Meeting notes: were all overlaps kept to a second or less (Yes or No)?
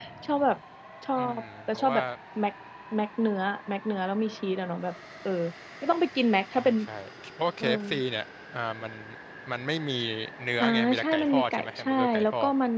No